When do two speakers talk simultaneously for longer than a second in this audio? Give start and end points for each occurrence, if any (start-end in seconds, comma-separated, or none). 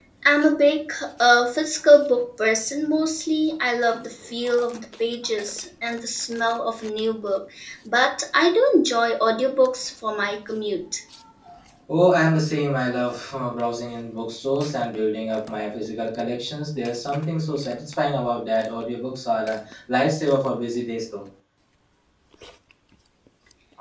none